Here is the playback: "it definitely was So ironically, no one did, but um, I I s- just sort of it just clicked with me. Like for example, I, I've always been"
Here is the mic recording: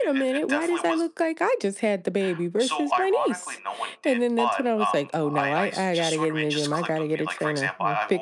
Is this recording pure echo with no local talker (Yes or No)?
No